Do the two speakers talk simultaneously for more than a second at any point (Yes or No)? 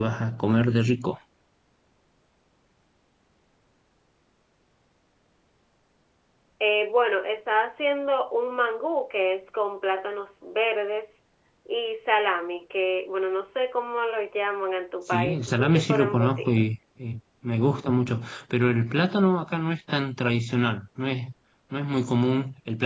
Yes